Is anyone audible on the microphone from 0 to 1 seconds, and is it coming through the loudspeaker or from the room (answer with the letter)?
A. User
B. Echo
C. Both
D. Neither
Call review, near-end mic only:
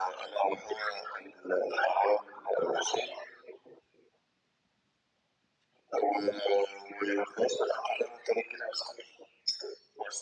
B